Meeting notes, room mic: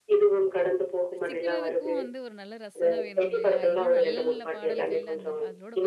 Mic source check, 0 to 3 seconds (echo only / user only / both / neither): both